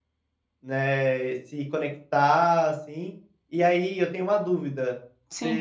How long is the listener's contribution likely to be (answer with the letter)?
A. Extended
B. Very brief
B